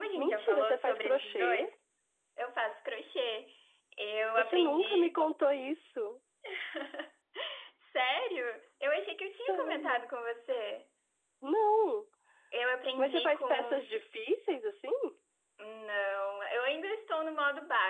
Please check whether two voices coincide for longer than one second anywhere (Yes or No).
Yes